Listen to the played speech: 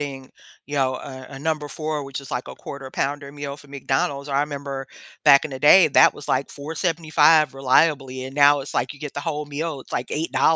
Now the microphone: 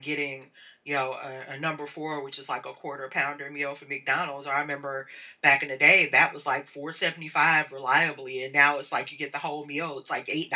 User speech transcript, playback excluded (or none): none